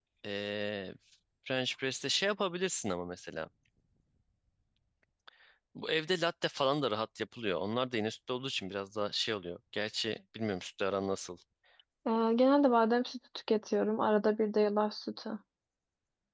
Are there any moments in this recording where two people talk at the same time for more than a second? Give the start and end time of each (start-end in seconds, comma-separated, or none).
none